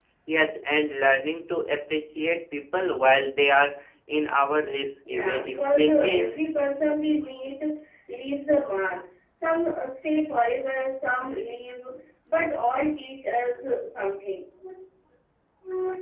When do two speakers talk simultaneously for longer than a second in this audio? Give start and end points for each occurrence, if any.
5.1-6.3

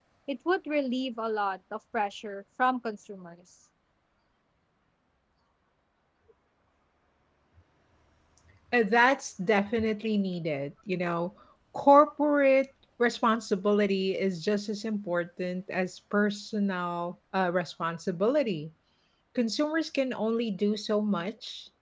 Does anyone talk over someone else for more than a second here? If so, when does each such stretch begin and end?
none

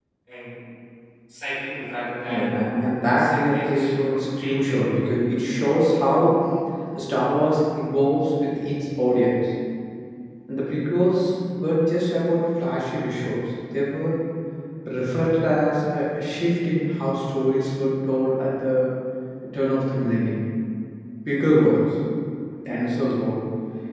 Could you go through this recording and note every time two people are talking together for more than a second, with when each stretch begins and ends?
3.1-4.9

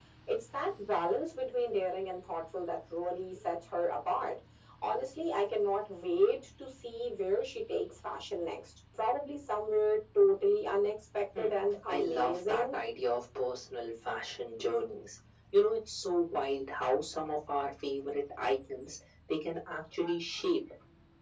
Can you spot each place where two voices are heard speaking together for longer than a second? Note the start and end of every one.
11.4-12.8

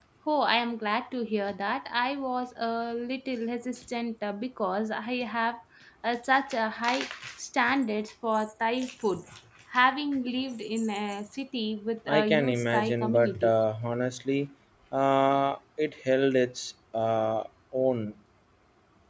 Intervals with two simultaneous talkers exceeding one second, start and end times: 12.1-13.5

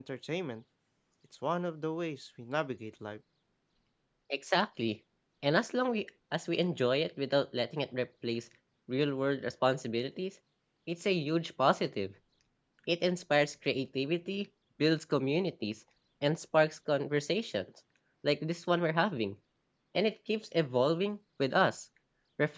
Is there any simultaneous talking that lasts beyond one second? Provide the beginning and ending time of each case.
none

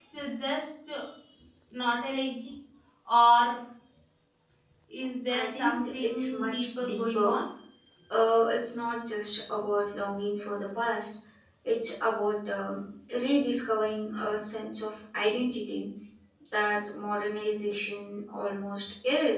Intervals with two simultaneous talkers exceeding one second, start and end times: 5.3-7.3

